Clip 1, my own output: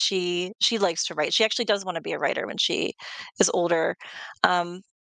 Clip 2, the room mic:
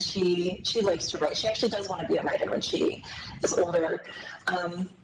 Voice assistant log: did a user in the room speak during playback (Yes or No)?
No